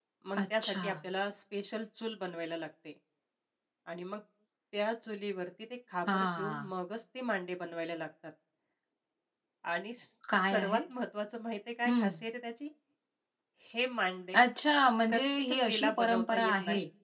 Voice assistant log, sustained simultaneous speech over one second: present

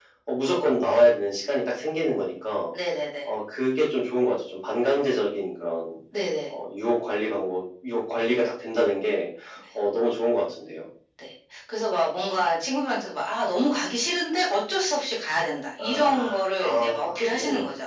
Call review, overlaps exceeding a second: present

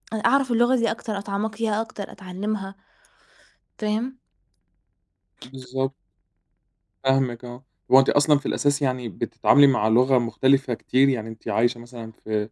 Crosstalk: none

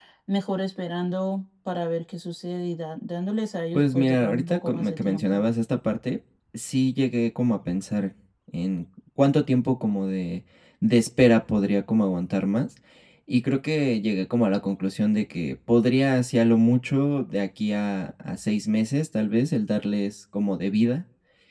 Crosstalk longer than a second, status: present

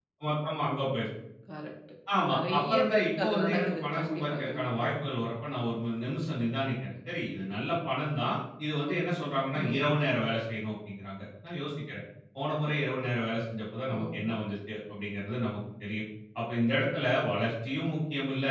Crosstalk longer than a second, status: present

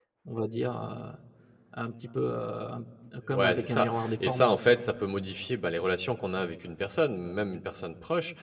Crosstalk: present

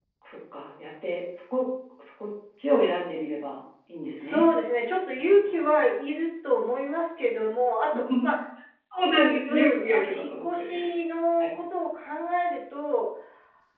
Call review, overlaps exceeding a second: present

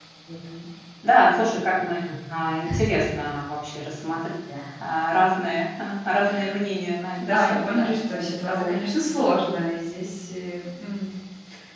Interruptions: present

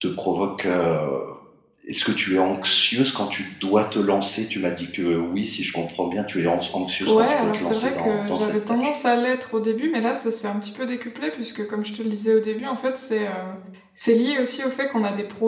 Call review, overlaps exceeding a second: present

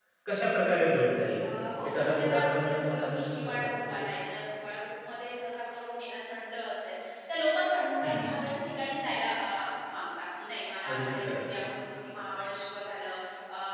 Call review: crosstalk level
present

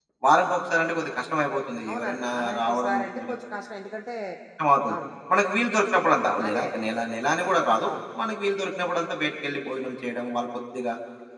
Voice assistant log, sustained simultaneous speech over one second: present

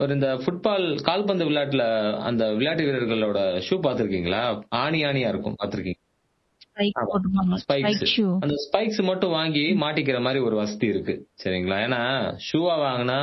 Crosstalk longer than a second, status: none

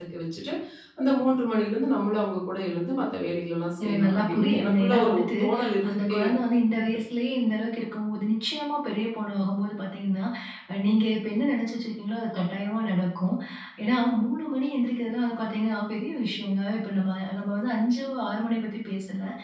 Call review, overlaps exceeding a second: present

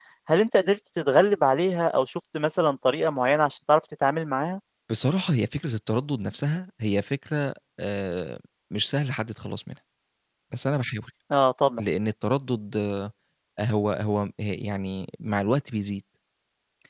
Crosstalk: none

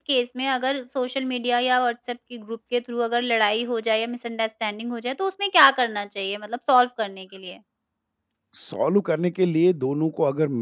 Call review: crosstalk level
none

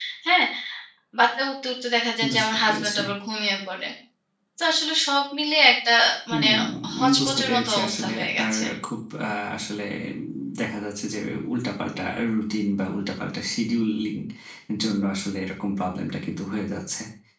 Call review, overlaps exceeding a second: present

